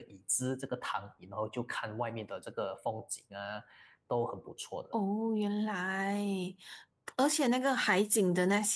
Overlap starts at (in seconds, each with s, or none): none